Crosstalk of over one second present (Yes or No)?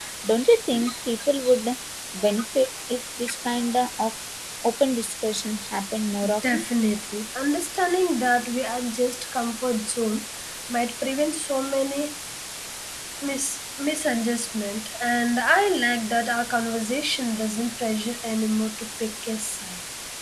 No